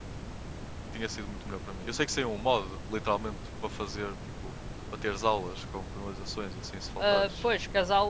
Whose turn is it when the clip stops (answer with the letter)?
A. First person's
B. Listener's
B